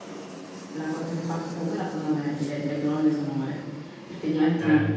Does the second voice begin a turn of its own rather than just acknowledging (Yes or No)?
No